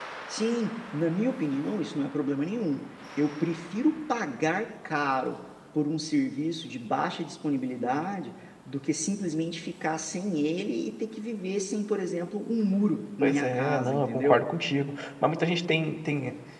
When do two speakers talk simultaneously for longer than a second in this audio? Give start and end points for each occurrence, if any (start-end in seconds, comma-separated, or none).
13.2-14.4